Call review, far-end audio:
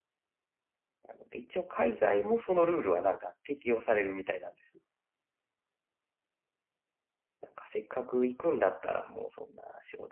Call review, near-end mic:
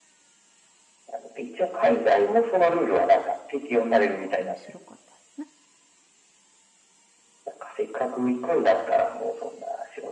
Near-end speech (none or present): present